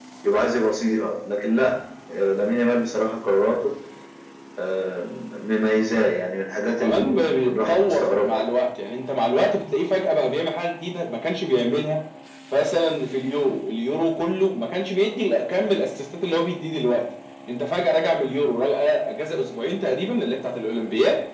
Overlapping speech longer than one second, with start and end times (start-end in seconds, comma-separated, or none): 6.7-8.4